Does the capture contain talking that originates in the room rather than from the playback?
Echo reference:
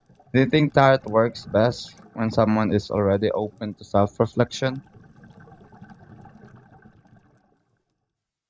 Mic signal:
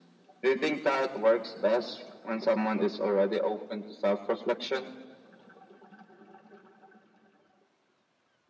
No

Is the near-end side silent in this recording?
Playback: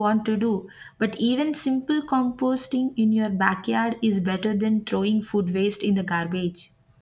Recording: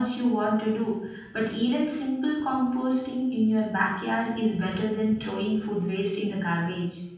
Yes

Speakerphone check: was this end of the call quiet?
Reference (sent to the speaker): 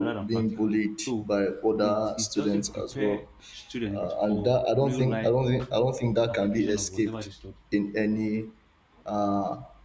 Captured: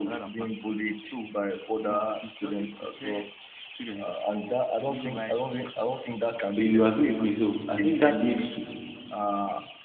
No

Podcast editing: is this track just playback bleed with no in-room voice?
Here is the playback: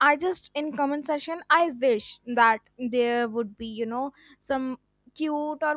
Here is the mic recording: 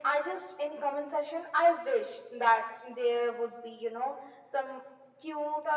Yes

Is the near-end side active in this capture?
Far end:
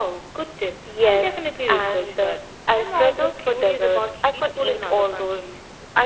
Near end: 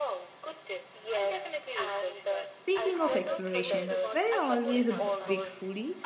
Yes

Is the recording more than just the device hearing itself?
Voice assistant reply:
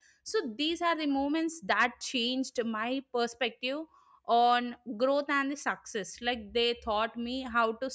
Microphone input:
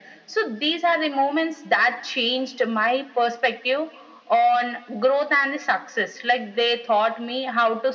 No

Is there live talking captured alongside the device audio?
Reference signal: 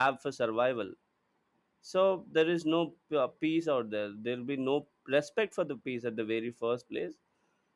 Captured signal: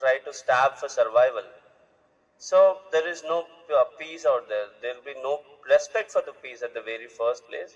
No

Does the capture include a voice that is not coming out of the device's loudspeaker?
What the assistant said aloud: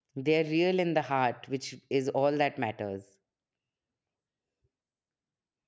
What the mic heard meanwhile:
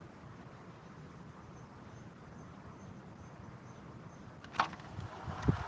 No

